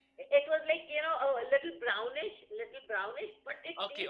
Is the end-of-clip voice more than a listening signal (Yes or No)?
Yes